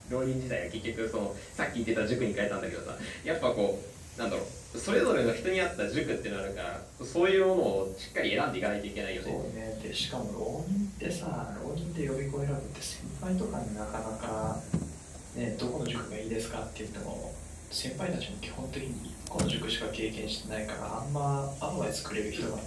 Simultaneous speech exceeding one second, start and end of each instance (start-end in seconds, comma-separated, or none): none